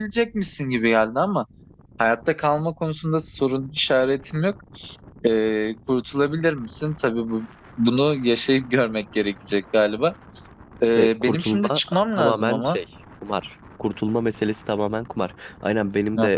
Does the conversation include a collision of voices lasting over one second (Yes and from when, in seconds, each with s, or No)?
Yes, from 11.0 s